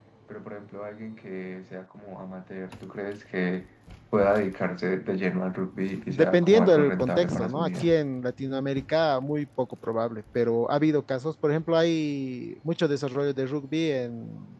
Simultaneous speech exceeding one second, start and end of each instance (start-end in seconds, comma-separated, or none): 6.1-7.9